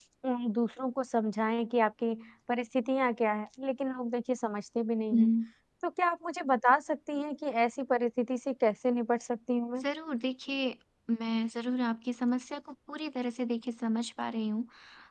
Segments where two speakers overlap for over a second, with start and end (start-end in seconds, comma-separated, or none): none